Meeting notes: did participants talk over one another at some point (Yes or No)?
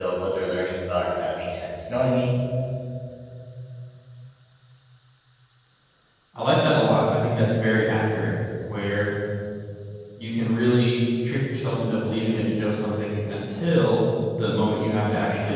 No